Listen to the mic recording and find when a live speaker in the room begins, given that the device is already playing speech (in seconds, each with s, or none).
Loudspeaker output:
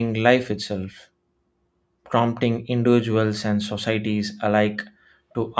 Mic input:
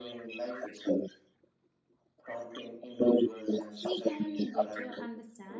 3.8 s